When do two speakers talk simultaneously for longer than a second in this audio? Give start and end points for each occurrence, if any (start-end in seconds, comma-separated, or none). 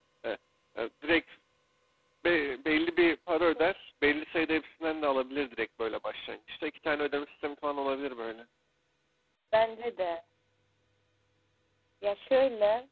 none